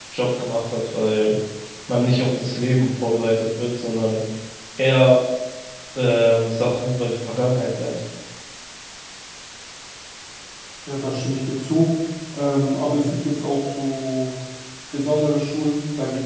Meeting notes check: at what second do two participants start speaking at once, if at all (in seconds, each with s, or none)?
none